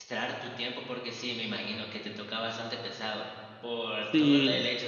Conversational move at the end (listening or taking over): listening